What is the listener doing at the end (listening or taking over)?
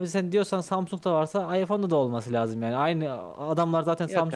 listening